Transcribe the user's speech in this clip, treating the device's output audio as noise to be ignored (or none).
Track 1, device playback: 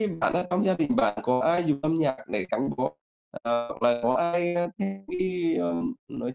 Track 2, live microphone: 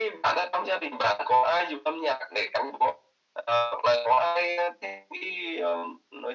none